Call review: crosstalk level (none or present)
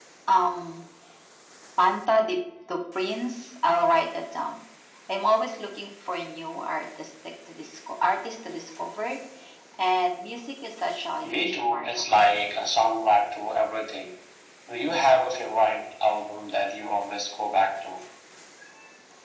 present